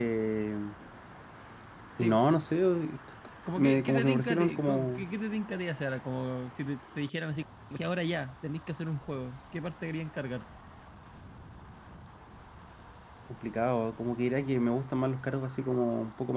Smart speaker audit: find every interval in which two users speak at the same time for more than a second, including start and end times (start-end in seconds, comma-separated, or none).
3.5-5.0